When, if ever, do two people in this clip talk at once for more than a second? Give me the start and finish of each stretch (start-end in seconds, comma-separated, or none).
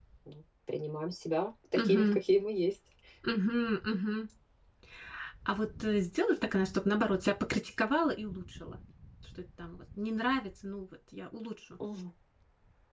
none